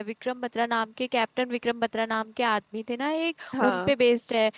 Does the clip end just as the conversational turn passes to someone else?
No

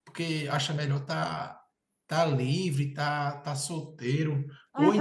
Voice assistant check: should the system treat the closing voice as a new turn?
Yes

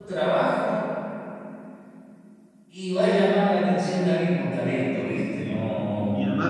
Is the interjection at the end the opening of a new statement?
Yes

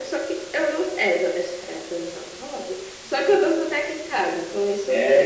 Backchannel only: No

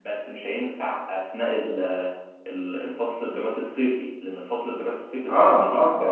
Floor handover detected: Yes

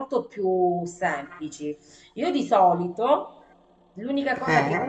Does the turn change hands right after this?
No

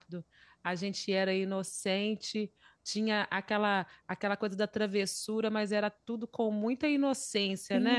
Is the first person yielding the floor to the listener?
Yes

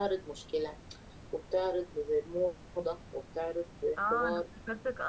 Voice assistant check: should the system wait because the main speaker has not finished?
No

